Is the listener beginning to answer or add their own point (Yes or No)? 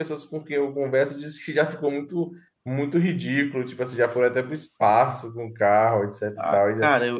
Yes